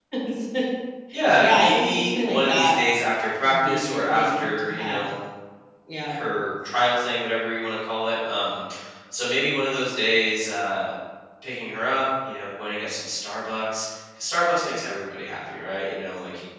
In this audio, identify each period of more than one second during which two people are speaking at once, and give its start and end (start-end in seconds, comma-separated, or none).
1.4-2.8, 3.4-5.0